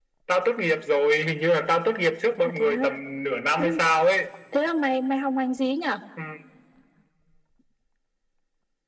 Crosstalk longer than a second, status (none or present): none